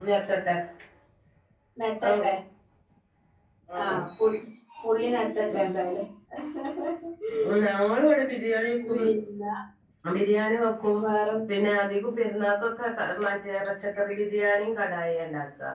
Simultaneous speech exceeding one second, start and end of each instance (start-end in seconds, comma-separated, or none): none